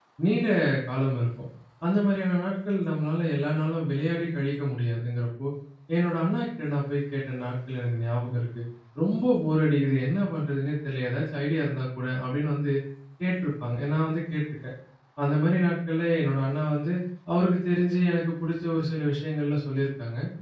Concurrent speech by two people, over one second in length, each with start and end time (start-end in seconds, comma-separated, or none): none